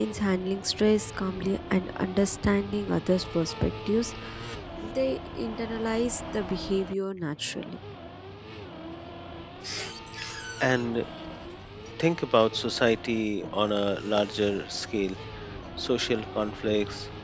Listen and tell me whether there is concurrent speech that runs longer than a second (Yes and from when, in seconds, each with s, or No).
No